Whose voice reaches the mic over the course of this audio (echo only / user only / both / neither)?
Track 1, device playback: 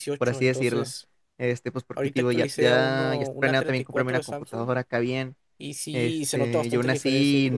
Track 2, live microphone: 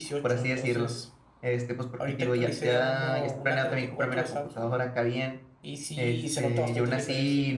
echo only